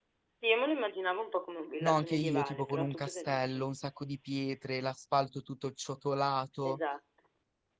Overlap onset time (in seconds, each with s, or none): 1.8 s